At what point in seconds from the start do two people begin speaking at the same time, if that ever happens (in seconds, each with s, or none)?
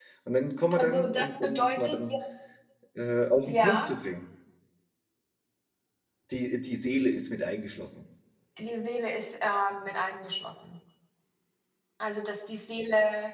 0.8 s